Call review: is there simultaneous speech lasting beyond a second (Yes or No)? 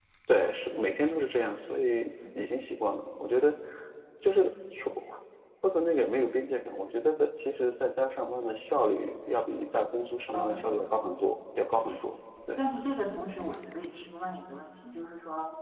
No